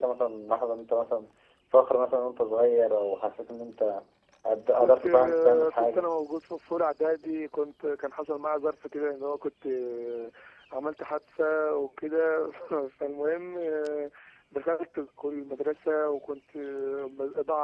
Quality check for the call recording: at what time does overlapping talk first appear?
5 s

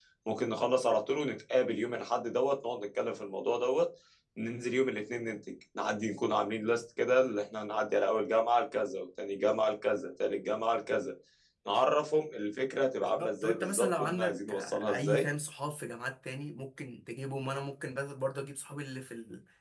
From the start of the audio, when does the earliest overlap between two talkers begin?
13 s

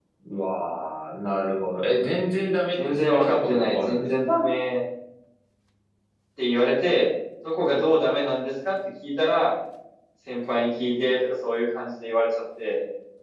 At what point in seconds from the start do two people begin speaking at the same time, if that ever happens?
3 s

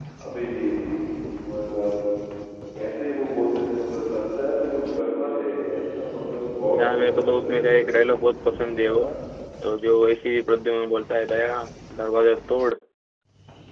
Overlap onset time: 7 s

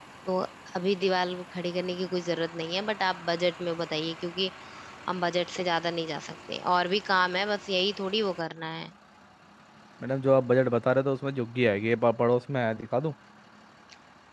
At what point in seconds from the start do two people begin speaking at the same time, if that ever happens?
none

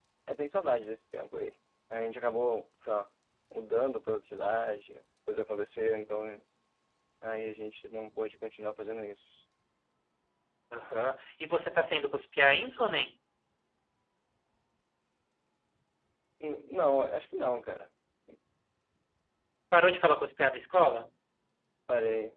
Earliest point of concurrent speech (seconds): none

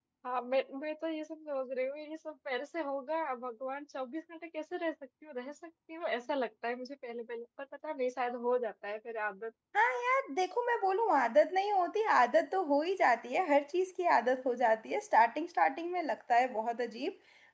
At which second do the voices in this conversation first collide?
none

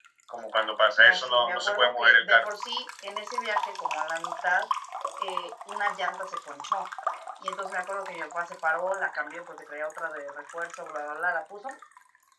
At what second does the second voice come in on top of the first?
1 s

